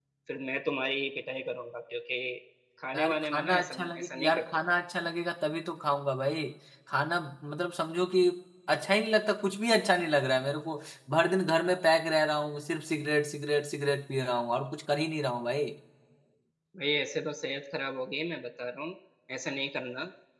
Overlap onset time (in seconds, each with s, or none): 3.0 s